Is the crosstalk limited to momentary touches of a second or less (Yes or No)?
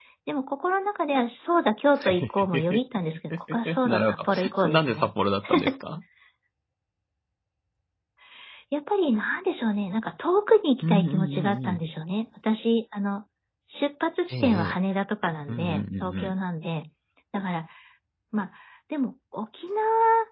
No